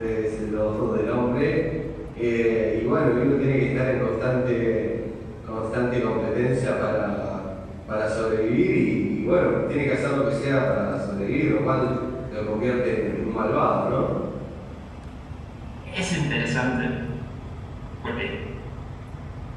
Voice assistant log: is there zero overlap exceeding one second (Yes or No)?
Yes